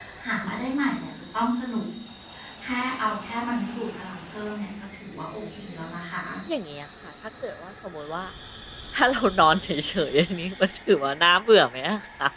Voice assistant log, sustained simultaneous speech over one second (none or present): none